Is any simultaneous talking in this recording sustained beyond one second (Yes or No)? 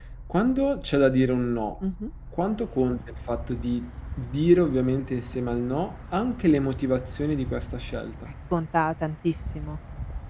No